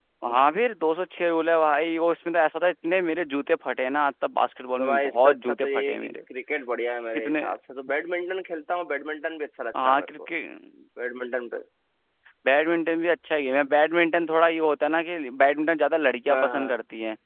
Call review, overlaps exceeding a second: present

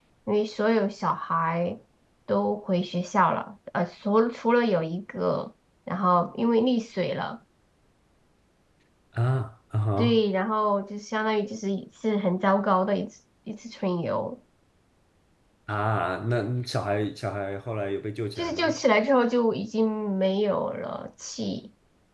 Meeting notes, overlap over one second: none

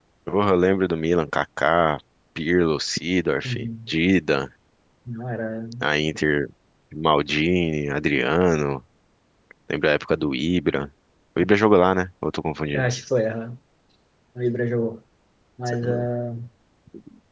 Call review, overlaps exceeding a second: none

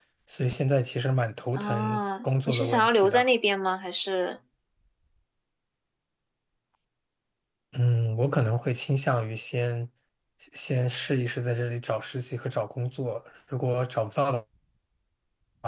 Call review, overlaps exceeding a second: present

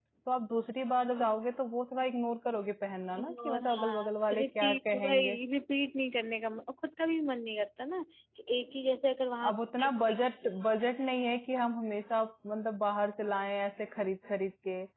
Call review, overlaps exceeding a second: present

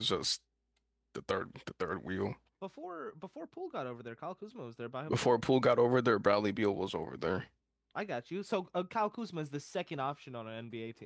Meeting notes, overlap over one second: none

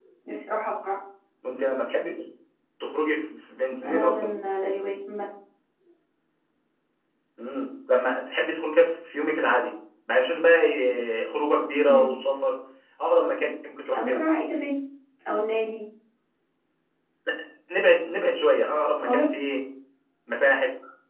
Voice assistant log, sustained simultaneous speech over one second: none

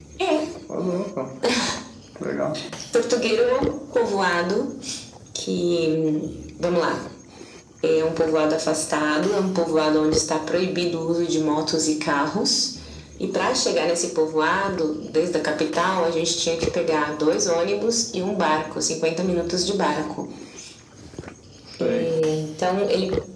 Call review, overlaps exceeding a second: none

